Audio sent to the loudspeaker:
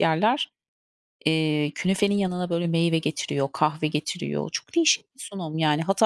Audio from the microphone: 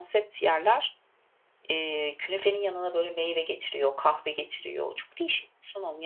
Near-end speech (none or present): none